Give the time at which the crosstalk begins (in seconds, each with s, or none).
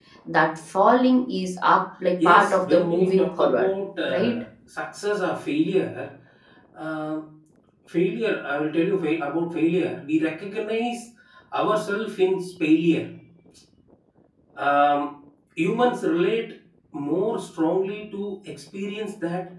2.2 s